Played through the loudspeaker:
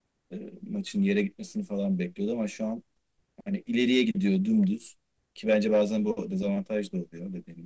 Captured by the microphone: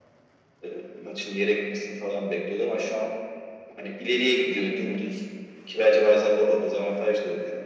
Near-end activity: none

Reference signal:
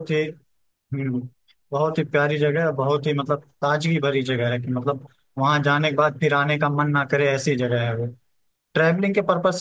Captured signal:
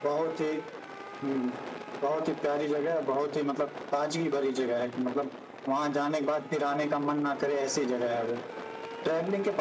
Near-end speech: none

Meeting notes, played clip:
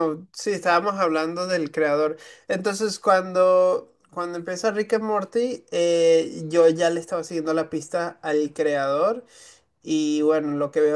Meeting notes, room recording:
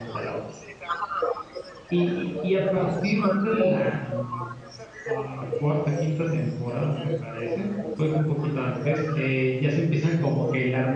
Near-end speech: present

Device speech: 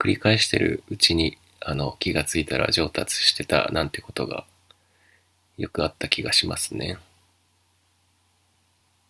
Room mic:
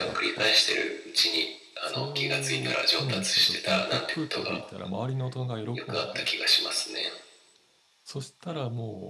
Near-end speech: present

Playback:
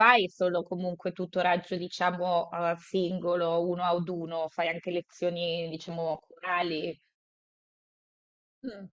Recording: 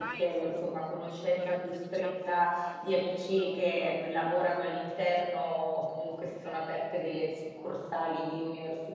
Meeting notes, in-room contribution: present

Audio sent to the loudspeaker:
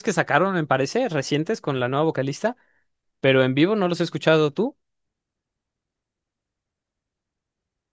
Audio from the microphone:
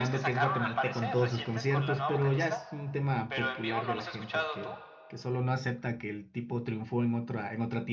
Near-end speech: present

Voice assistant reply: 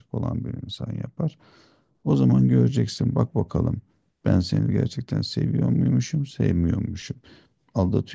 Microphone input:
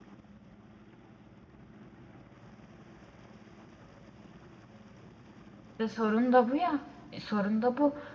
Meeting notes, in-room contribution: present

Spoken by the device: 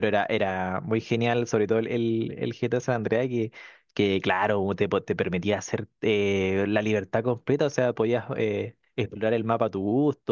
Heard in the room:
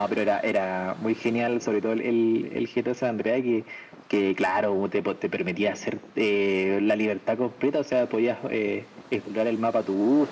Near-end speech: none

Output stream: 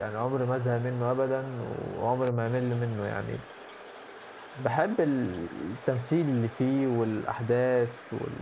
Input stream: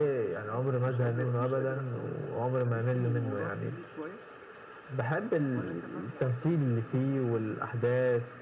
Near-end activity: present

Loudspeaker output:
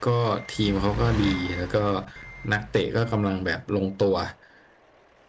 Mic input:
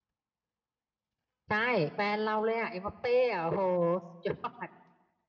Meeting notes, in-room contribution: present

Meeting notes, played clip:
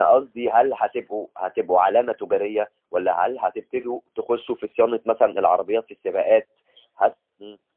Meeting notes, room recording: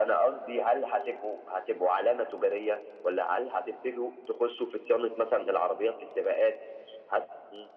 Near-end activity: none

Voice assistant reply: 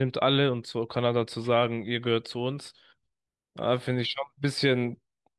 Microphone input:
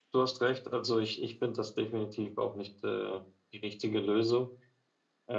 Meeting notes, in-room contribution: present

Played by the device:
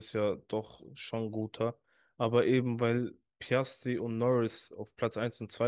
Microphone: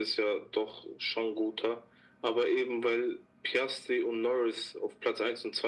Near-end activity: none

